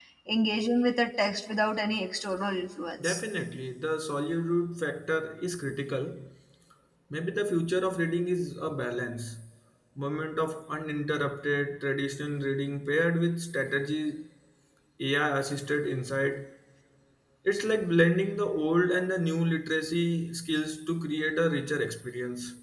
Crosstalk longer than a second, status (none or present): none